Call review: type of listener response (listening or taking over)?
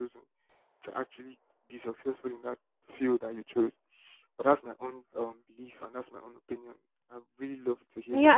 taking over